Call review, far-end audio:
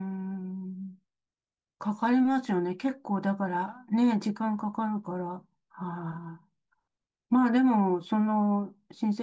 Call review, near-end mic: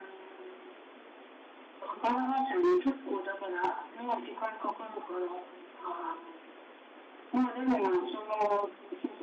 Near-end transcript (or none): none